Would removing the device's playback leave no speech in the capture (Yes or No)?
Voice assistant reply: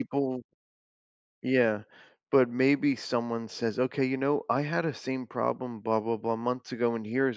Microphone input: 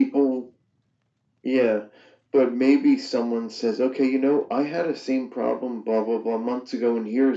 Yes